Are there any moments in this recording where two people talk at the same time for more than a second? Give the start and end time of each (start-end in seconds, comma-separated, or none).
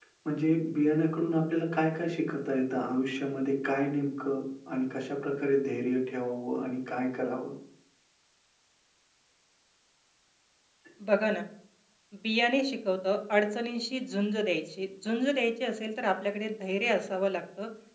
none